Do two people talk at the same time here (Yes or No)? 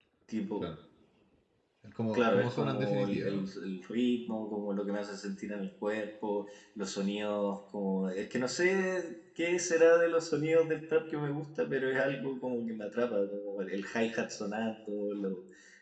Yes